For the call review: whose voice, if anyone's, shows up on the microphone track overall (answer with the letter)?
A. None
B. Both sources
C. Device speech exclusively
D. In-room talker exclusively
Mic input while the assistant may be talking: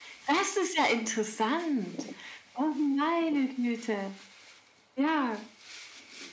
C